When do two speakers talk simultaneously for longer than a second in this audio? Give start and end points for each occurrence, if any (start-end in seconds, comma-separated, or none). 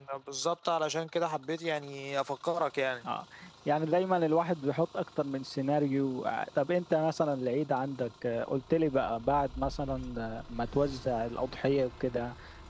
none